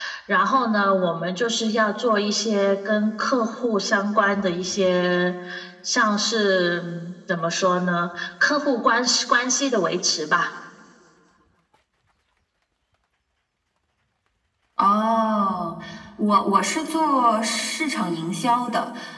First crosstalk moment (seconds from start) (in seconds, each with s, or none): none